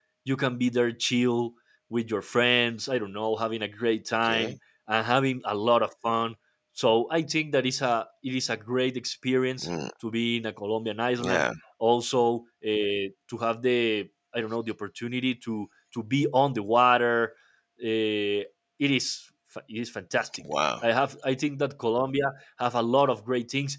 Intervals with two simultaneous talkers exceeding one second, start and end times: none

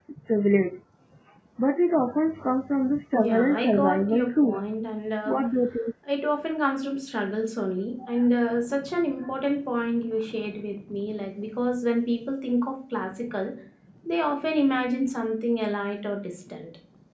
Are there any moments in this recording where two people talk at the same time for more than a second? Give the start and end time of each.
3.1-4.6

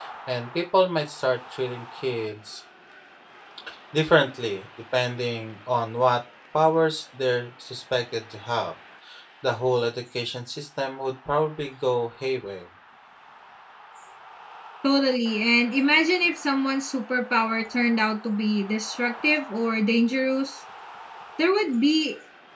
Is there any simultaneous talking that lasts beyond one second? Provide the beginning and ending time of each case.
none

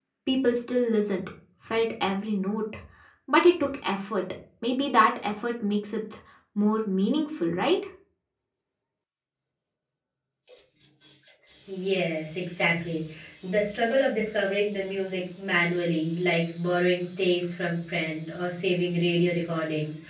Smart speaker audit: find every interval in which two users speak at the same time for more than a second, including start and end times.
none

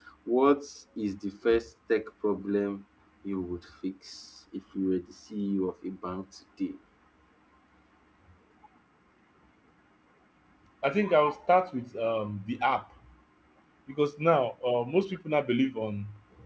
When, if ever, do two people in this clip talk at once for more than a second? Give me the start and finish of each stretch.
none

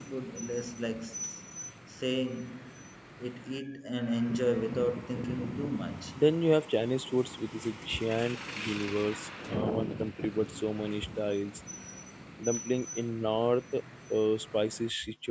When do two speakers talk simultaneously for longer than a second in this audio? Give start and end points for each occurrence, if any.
none

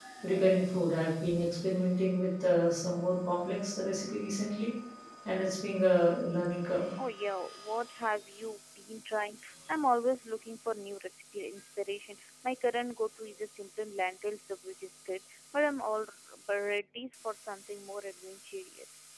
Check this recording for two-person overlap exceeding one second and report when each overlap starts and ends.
none

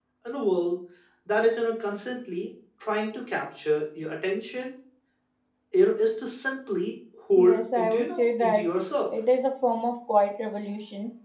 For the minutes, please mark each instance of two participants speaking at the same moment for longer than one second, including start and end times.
7.4-8.6

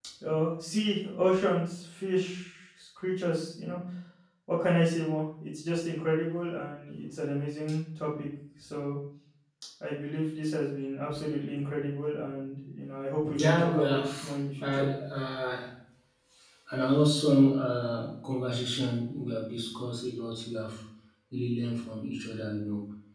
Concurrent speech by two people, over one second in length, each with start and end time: 13.4-14.8

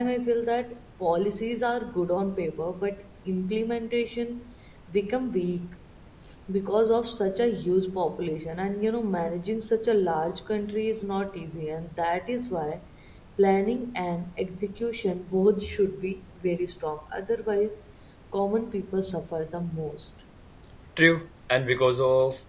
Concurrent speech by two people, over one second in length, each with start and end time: none

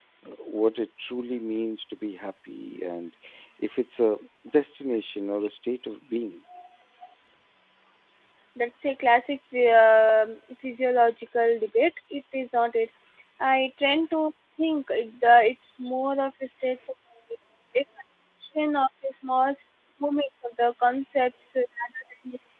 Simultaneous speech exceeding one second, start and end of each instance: none

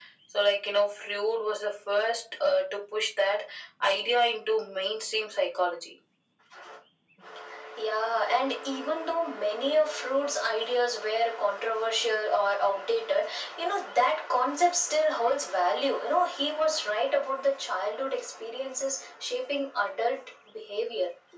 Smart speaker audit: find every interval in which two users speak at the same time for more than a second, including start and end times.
none

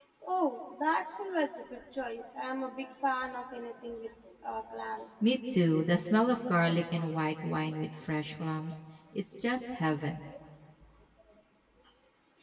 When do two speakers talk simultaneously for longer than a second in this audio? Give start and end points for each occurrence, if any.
none

